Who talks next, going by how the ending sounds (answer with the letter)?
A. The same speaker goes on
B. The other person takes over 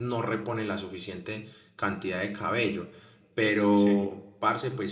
A